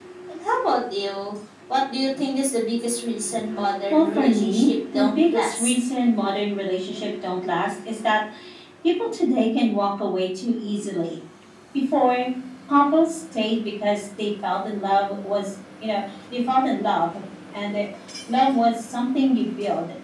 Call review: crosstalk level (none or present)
present